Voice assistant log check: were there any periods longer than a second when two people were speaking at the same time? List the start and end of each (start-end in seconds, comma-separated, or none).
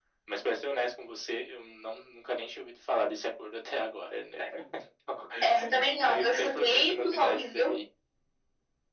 5.4-7.8